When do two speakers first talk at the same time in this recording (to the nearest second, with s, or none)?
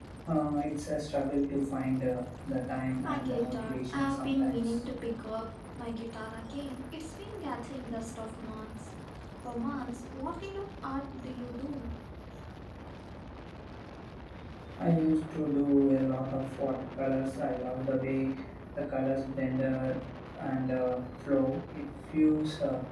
3 s